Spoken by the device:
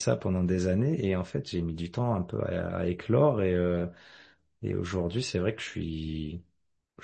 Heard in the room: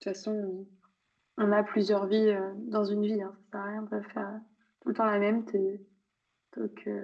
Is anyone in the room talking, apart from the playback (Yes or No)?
Yes